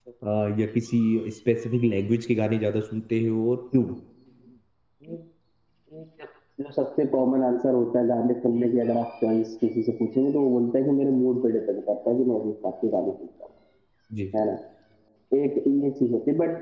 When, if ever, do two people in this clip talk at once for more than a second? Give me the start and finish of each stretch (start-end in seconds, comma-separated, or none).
none